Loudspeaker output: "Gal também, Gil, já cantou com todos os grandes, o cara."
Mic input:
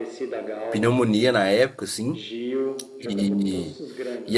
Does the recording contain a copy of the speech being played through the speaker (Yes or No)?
Yes